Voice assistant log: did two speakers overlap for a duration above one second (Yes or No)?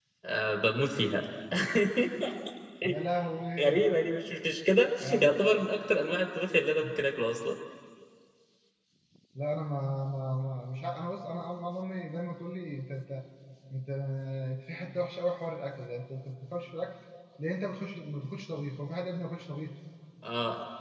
No